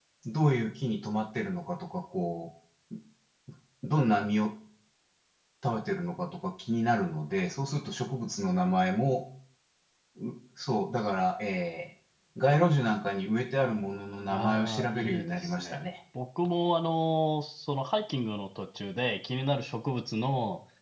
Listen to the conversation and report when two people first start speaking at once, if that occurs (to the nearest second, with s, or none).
14 s